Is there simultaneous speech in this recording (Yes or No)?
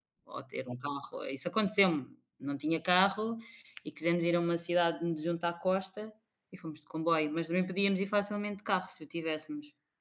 No